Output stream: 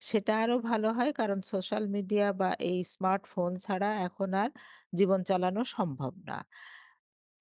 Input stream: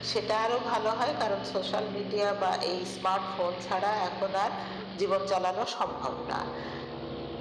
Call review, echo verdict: present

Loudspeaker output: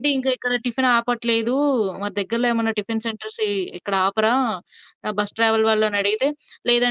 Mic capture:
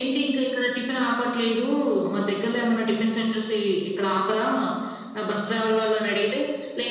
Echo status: present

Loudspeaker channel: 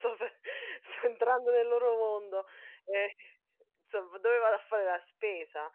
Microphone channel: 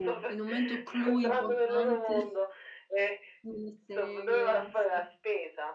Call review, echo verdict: present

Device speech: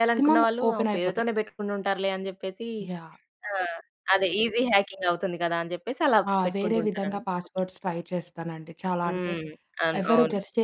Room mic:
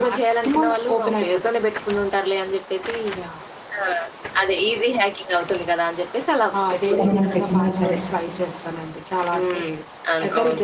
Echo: present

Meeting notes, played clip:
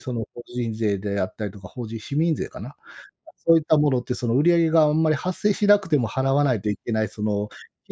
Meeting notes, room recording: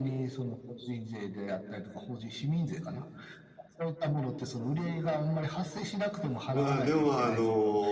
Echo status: present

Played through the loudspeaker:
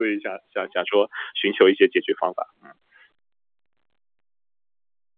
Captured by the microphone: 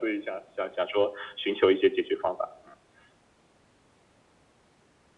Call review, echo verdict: present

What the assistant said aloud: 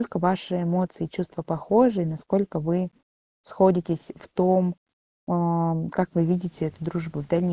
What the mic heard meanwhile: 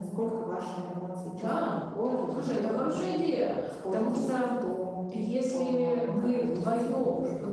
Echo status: present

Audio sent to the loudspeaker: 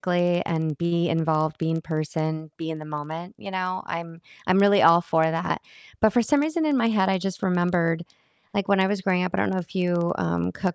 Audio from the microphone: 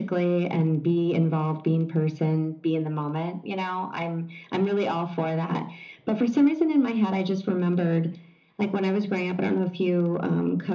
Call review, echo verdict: present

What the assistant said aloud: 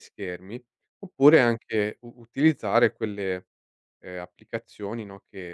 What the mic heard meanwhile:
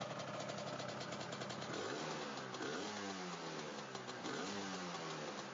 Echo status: none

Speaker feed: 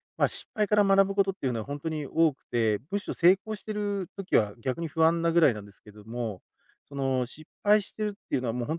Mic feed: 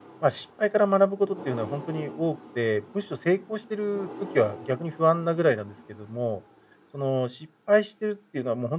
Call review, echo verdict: present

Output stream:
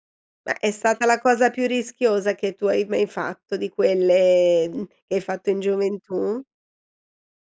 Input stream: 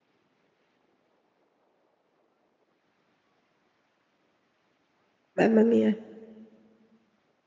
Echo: none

